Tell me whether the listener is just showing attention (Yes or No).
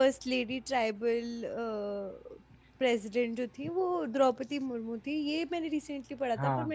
Yes